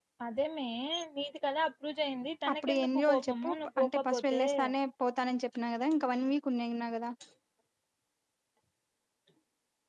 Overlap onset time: 2.4 s

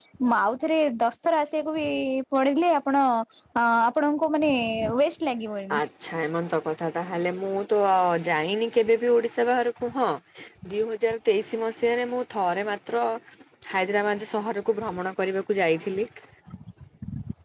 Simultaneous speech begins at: none

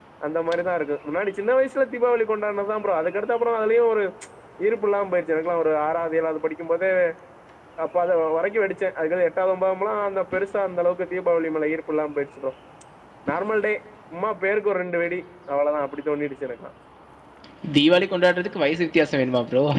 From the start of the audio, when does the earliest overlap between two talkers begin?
none

